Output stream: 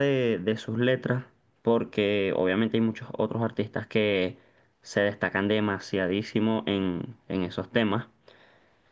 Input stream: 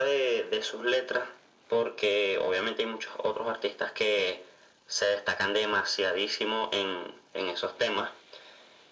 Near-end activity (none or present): none